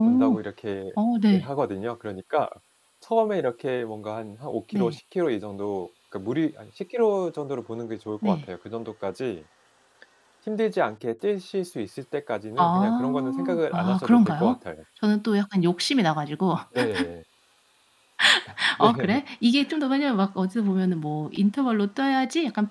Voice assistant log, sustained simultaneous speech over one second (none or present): present